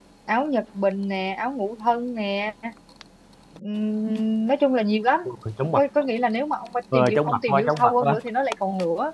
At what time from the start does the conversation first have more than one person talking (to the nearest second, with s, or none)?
7 s